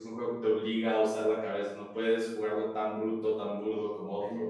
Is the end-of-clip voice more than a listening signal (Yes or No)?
Yes